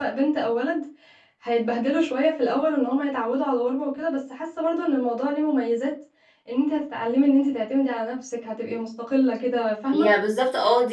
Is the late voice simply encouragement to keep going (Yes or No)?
No